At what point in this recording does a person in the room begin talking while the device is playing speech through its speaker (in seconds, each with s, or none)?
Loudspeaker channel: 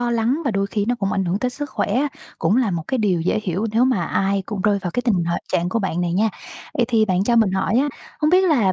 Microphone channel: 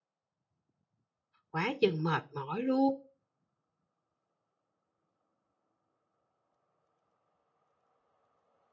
1.5 s